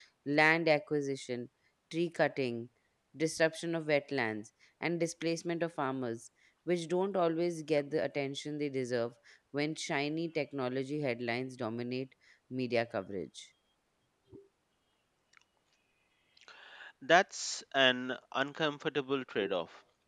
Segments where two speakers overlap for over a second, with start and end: none

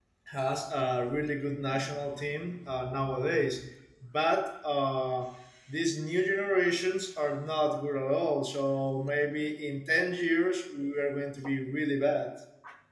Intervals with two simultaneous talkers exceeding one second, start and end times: none

